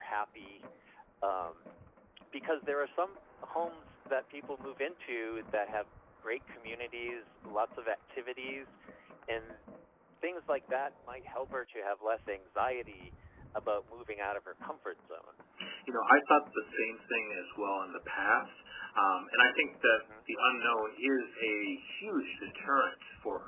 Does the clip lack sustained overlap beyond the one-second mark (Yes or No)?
Yes